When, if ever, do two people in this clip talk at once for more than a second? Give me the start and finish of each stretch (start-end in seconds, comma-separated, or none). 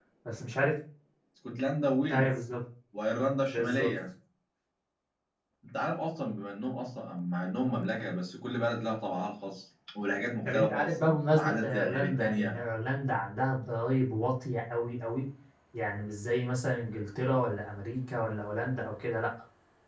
10.5-12.5